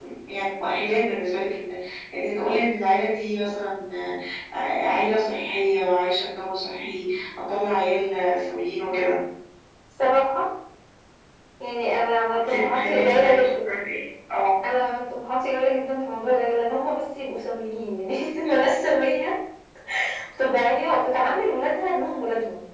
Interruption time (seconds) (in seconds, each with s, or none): 12.3 s